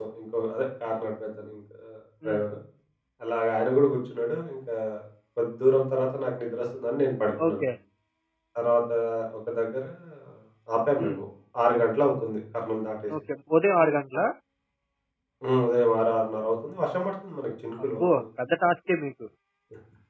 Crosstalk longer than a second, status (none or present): none